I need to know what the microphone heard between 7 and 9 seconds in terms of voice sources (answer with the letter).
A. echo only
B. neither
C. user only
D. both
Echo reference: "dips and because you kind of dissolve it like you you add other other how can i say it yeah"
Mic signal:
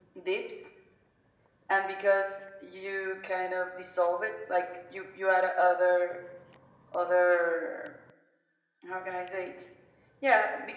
A